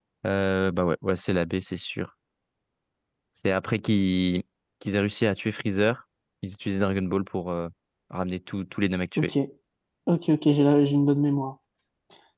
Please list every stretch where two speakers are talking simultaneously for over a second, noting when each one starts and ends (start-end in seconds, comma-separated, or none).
none